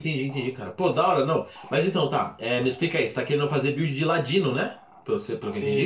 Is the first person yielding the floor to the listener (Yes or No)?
Yes